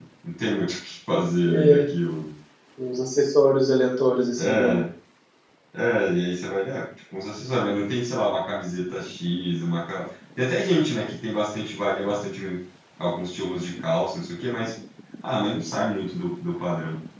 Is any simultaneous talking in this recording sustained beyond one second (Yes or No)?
No